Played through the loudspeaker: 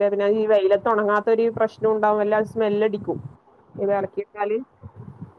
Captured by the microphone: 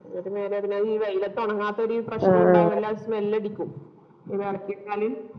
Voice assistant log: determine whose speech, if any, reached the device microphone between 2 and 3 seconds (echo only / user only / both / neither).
both